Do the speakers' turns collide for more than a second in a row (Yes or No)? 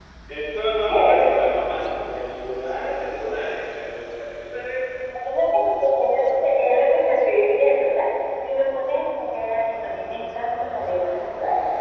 No